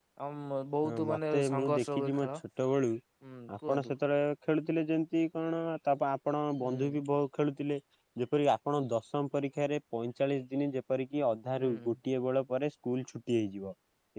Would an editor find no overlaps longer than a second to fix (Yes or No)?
No